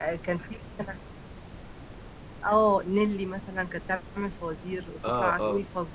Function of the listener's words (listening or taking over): listening